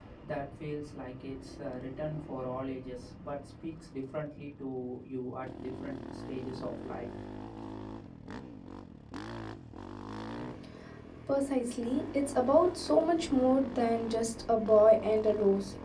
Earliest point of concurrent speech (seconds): none

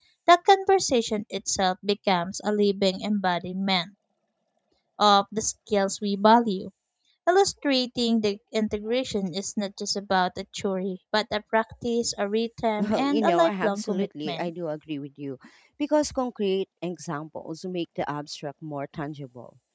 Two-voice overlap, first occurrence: 12.8 s

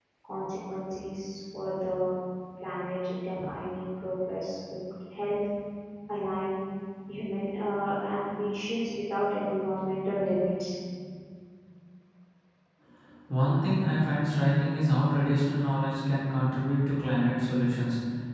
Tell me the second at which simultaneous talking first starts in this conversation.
none

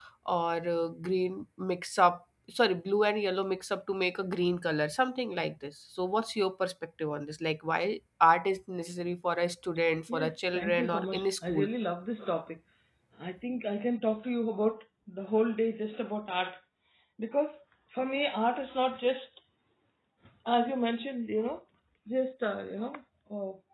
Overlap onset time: 10.1 s

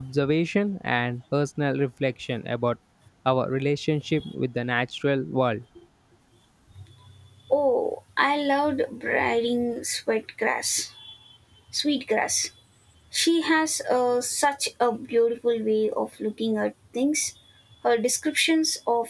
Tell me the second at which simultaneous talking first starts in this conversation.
none

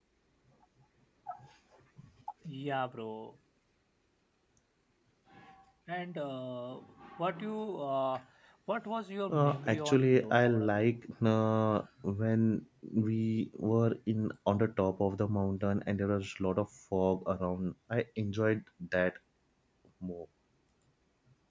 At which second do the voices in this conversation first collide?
9.3 s

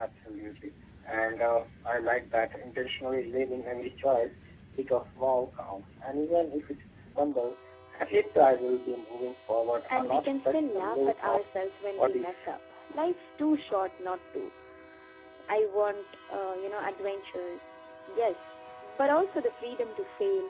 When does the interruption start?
9.9 s

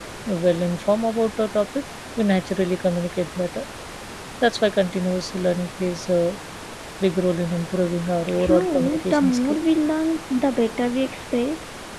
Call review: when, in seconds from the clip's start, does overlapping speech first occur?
8.3 s

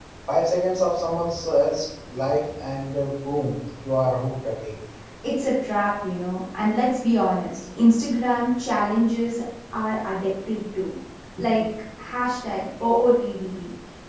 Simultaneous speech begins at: none

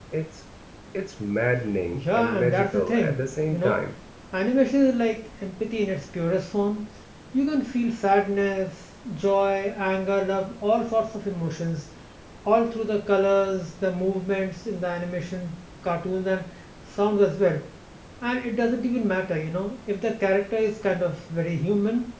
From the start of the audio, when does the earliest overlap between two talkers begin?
1.9 s

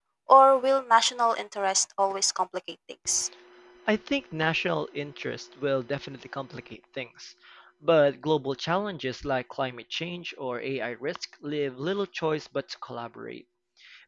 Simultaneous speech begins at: none

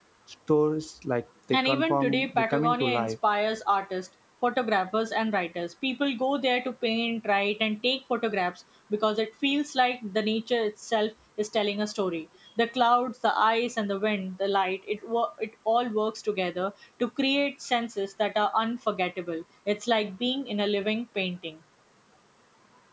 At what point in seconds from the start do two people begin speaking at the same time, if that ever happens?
1.5 s

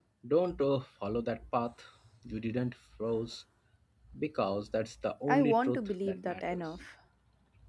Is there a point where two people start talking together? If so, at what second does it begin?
5.3 s

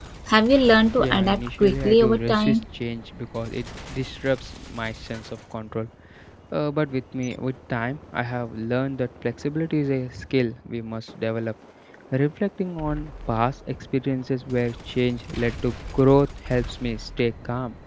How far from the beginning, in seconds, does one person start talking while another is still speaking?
1.0 s

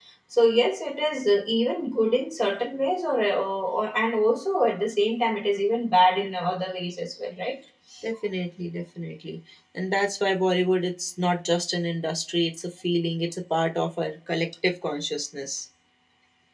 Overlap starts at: none

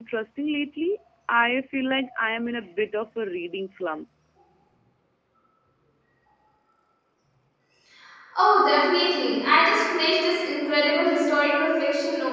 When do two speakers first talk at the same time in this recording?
none

